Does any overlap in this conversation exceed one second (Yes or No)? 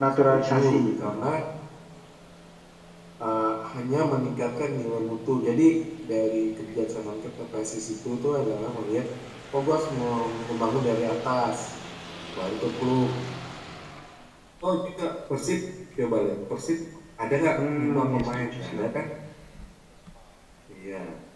Yes